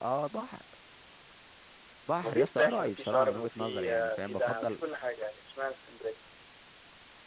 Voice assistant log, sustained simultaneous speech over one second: present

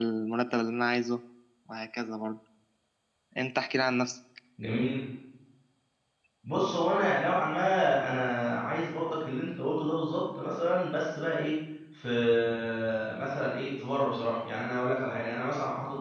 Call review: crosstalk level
none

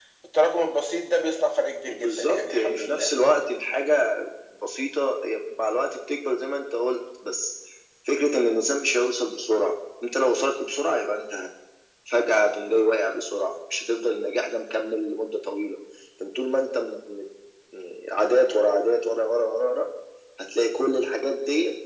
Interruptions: present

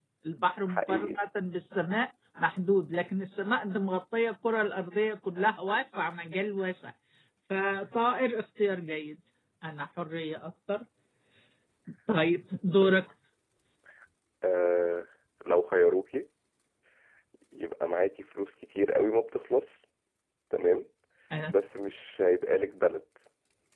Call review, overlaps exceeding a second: none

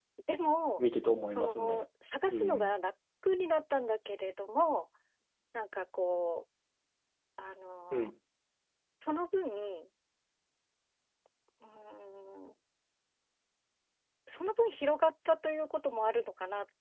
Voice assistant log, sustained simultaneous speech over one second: none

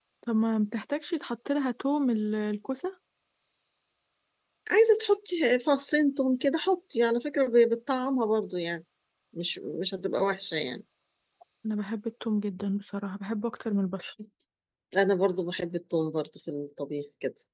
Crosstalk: none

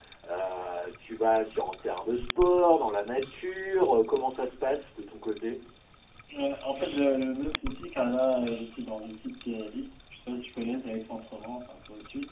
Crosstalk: none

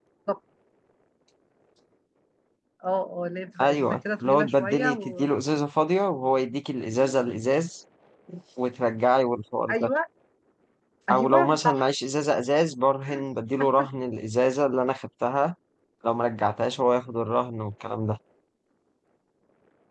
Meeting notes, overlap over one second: present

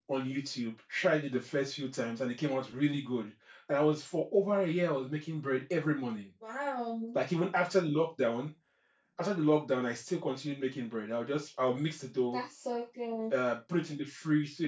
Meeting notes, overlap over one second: none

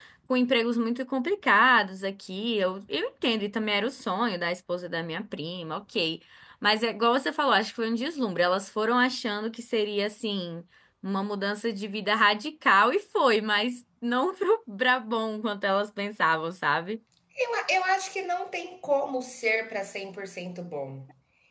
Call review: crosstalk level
none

